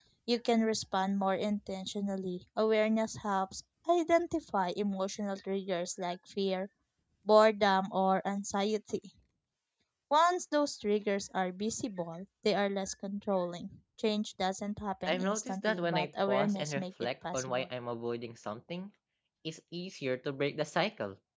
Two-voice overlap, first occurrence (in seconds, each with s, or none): 15.1 s